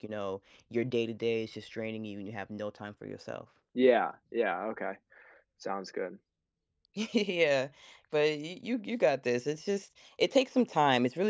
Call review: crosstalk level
none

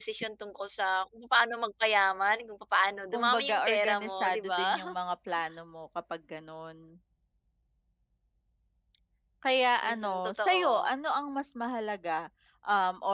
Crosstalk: present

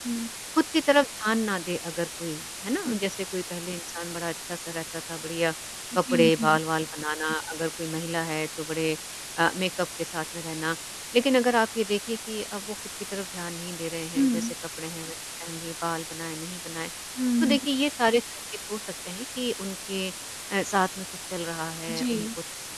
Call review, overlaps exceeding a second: none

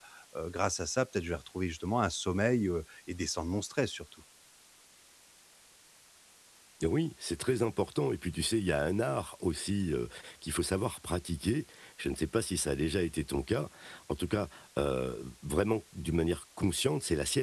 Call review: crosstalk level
none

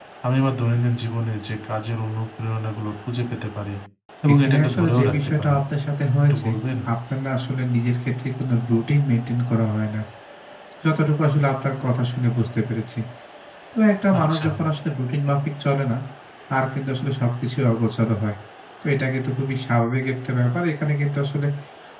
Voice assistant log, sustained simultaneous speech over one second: present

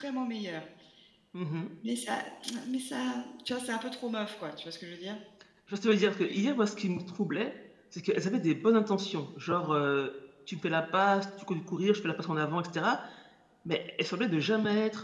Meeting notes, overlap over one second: none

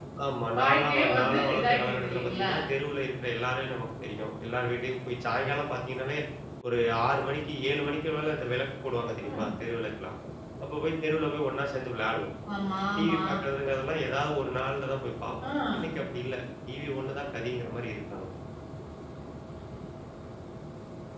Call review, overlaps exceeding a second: present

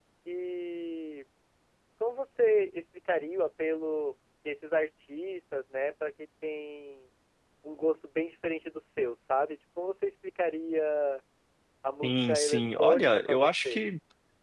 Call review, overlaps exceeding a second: present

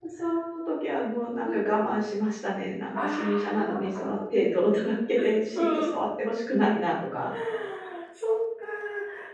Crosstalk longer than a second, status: present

